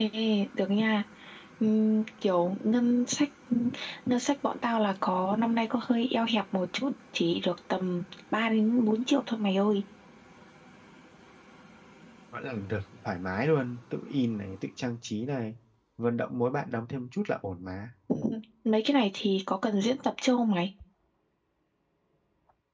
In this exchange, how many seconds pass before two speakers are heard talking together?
none

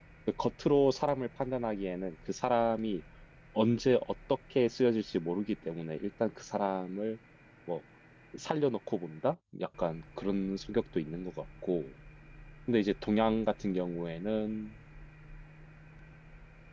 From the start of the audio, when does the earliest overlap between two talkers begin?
none

